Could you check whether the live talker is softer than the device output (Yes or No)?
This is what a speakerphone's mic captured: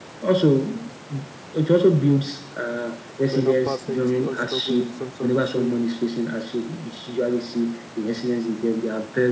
Yes